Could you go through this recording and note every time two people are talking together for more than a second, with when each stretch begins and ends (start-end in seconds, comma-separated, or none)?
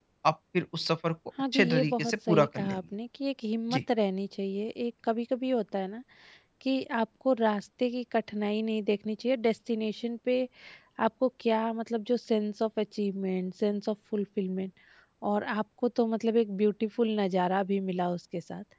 1.5-2.8